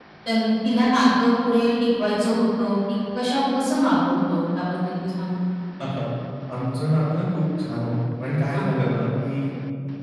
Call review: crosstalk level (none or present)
none